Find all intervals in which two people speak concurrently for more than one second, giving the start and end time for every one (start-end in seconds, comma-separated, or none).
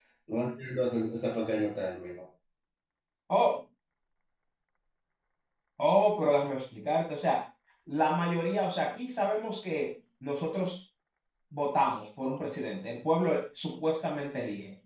none